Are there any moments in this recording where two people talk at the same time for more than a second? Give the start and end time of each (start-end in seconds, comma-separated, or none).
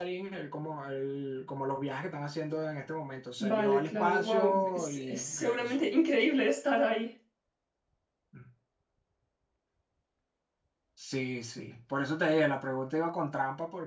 3.4-5.8